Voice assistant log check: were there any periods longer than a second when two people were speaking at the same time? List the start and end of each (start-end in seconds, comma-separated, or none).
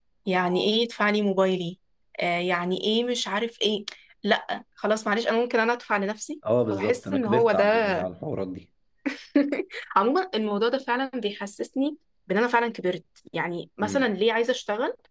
6.7-8.0